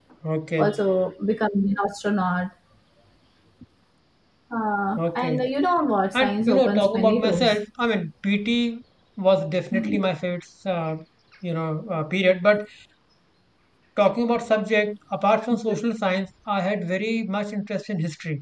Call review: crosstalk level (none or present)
present